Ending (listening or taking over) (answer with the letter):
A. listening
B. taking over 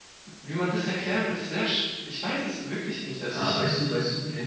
B